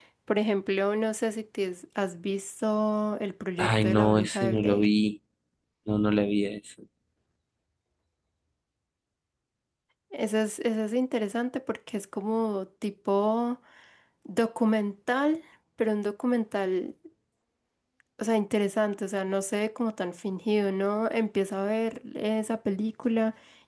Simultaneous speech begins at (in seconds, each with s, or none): 3.6 s